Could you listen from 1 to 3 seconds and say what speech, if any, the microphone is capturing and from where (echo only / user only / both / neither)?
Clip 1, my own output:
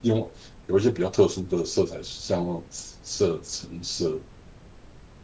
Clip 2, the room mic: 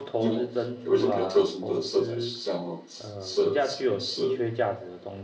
both